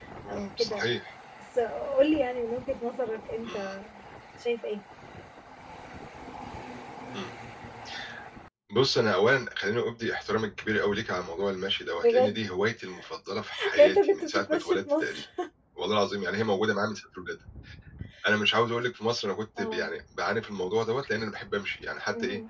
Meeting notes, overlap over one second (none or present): present